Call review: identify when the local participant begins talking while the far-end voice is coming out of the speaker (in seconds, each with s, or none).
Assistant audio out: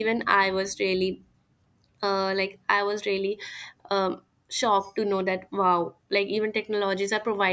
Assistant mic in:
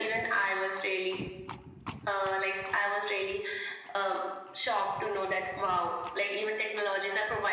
none